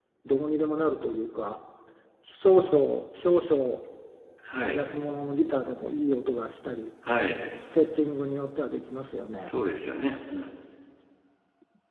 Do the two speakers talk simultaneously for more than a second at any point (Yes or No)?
No